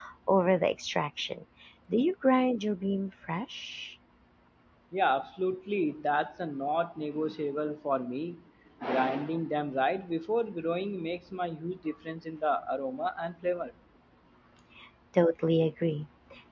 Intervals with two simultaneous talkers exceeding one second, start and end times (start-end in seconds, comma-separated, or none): none